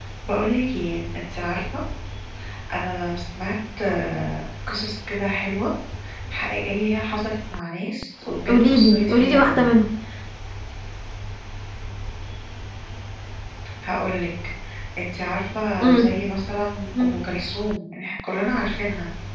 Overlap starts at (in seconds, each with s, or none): 8.5 s